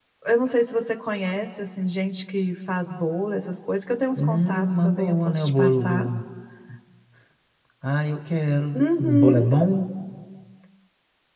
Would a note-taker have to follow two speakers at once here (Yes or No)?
Yes